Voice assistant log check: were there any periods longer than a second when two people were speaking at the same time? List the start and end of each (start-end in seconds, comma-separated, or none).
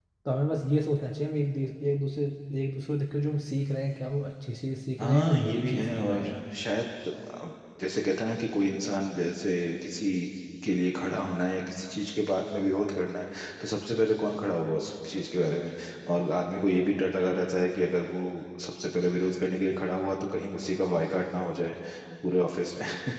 5.0-6.2